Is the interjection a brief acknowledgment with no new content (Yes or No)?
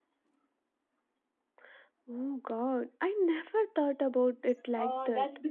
No